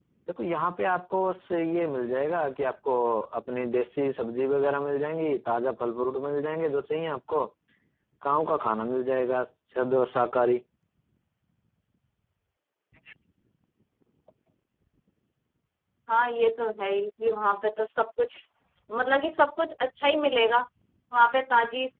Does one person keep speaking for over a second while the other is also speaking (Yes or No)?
No